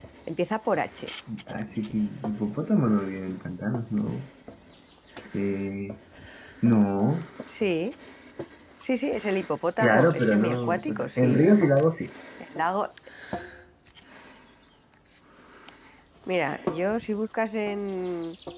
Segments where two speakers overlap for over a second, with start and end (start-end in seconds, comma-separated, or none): 9.8-11.5